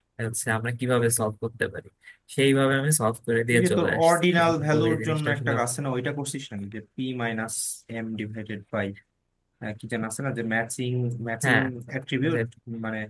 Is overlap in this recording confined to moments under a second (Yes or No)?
No